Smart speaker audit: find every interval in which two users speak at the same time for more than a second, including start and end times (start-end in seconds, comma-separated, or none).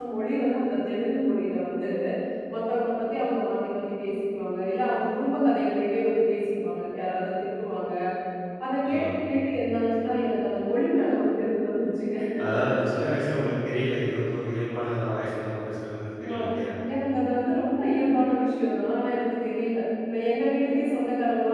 none